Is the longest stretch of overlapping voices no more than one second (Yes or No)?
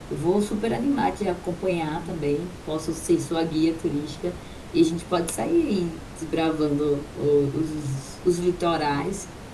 Yes